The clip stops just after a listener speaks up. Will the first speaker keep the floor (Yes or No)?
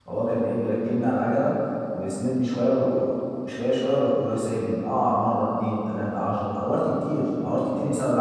No